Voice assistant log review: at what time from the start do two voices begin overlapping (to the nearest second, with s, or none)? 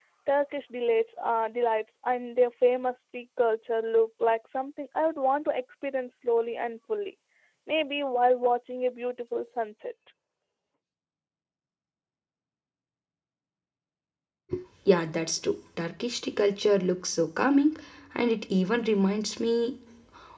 none